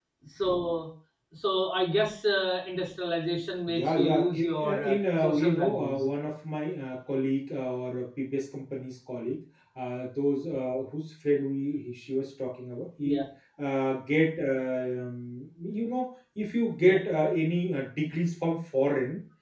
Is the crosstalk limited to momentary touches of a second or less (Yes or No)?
No